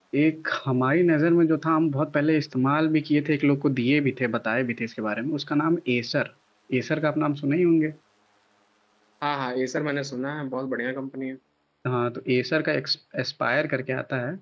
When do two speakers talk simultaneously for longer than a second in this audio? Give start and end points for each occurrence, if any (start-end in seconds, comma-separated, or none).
none